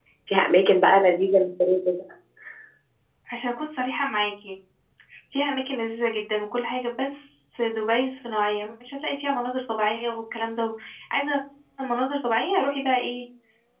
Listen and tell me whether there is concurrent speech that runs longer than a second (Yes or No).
No